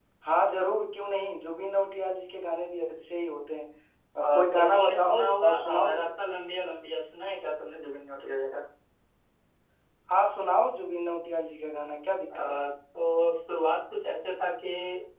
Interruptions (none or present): present